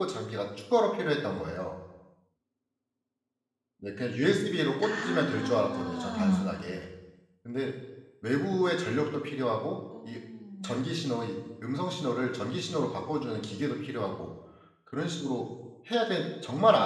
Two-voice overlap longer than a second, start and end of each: 4.8-6.4

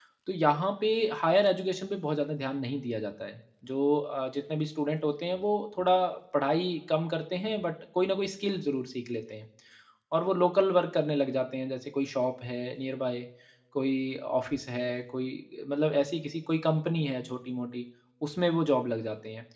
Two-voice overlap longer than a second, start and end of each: none

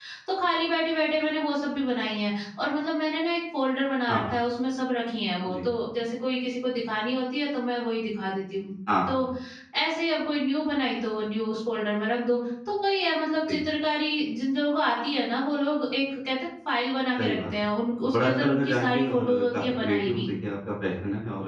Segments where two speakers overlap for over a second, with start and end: 18.0-20.3

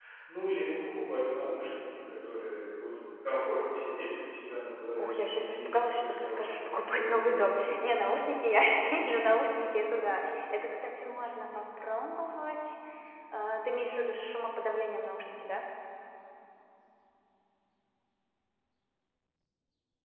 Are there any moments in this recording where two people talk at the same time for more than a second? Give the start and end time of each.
5.0-8.1

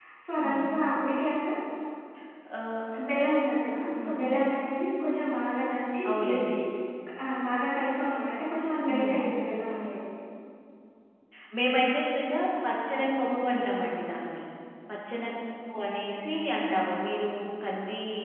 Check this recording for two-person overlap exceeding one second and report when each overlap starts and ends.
none

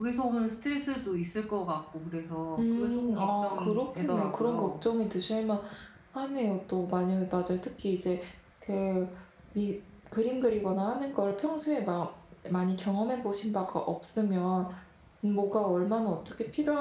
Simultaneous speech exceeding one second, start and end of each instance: 2.6-4.7

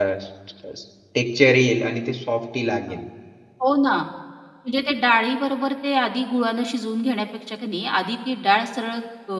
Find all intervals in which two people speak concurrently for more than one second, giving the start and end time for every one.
none

